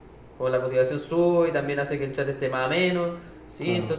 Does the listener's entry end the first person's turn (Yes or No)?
No